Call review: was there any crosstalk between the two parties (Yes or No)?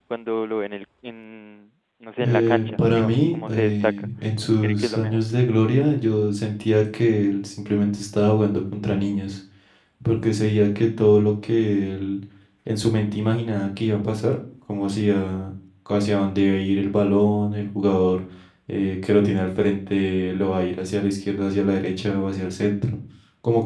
Yes